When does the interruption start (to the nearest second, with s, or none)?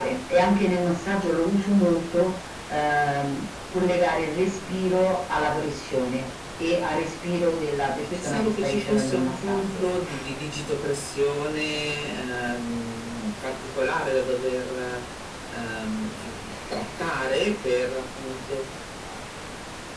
8 s